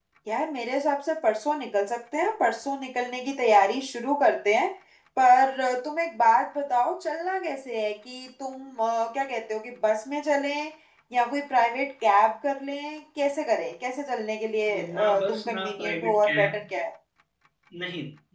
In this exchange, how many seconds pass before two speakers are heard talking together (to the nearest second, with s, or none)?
15 s